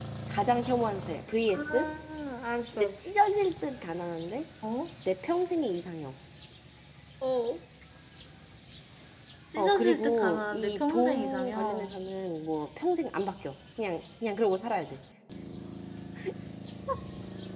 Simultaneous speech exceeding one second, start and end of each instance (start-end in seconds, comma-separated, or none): 9.6-11.9